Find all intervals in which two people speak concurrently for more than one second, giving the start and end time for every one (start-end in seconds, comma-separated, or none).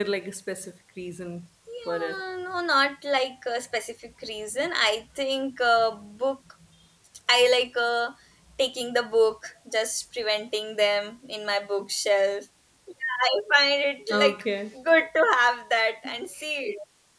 none